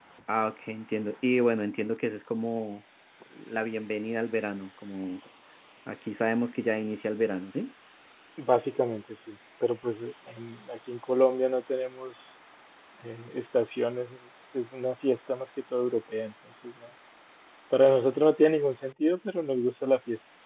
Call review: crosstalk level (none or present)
none